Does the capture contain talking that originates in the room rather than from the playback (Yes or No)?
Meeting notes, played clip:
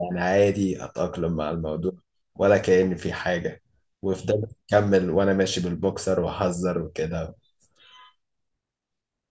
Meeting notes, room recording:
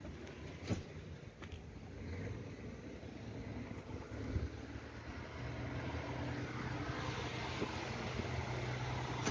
No